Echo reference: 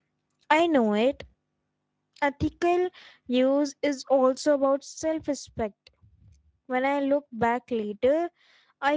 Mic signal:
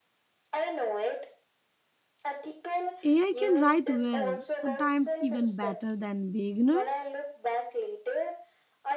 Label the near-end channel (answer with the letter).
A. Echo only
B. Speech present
B